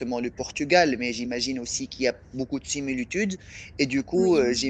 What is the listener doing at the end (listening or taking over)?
listening